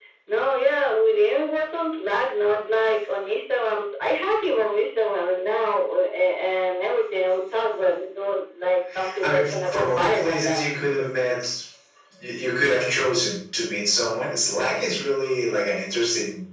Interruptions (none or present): present